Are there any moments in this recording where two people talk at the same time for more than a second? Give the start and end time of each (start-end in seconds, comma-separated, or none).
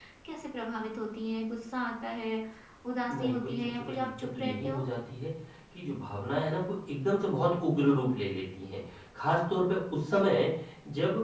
3.1-4.8